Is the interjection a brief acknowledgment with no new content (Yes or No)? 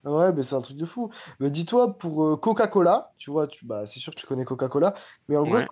Yes